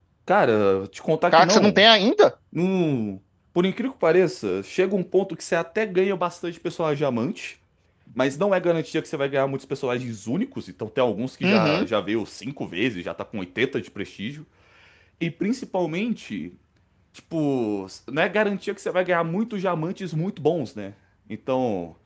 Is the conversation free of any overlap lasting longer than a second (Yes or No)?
Yes